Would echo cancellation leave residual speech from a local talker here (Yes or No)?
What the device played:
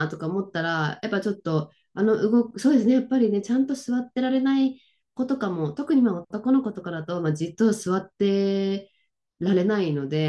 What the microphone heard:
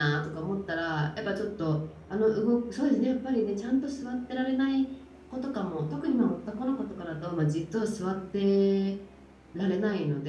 No